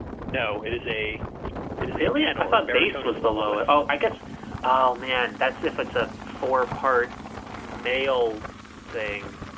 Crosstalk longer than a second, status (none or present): present